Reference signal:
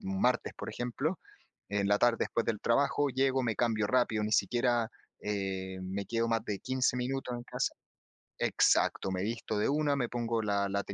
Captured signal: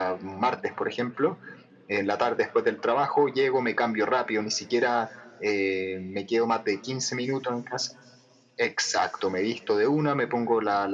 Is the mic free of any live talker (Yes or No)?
Yes